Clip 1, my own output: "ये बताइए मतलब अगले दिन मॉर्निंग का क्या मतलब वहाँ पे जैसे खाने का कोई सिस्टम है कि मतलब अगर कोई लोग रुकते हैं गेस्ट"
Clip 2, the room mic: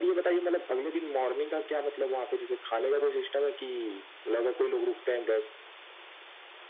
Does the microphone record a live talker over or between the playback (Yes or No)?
No